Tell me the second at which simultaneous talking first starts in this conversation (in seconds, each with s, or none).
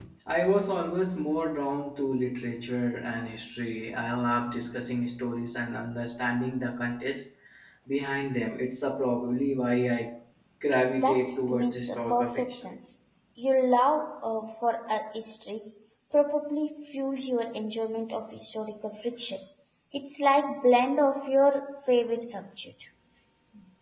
11.0 s